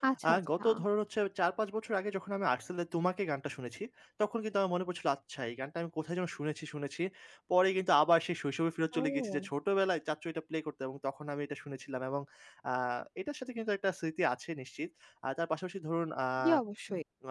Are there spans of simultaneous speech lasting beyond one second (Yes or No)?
No